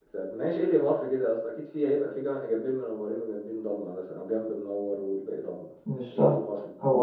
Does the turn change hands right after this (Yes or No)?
Yes